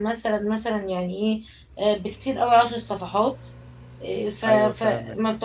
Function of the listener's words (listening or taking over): listening